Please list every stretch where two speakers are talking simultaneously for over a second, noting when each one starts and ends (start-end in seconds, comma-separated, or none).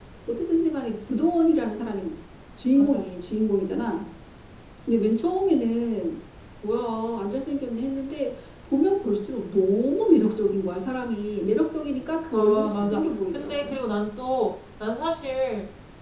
12.3-13.7